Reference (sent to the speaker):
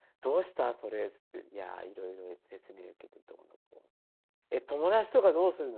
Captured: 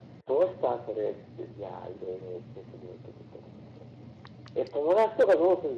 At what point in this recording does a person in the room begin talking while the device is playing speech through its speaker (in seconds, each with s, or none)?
none